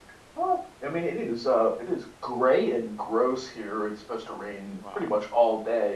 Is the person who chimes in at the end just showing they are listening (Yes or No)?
Yes